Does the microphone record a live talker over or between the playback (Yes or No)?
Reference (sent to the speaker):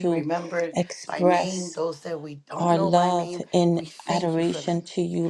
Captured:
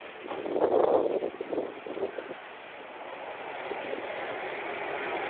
No